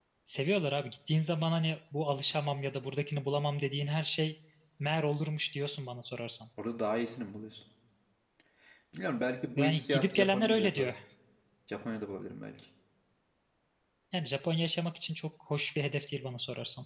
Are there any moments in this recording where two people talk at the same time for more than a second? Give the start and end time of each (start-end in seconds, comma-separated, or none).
9.6-10.9